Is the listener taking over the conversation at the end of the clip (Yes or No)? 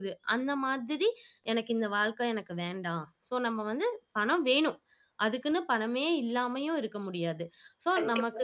No